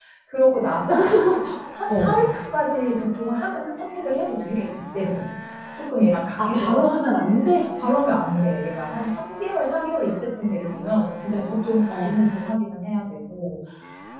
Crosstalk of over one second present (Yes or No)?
No